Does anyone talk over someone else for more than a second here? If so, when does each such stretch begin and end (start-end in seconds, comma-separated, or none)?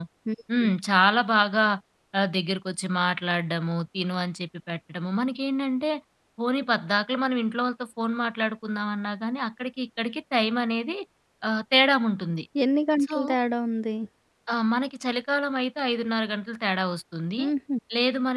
none